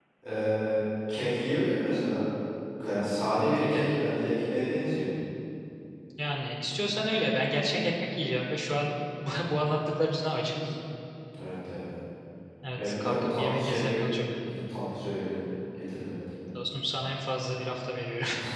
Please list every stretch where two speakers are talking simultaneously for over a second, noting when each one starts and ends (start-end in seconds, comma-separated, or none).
12.8-14.1